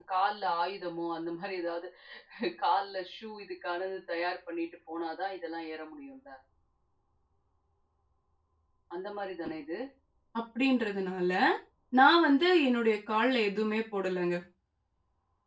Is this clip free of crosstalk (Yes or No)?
Yes